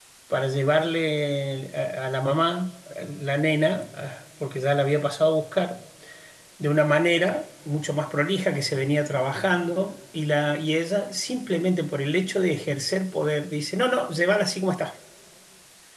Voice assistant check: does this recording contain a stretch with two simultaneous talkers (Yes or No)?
No